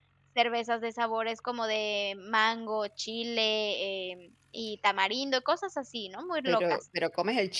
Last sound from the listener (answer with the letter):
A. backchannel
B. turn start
B